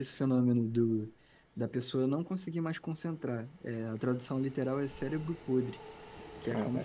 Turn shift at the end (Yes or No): No